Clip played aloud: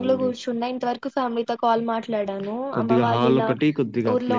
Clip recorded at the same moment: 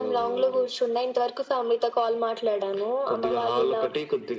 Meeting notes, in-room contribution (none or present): none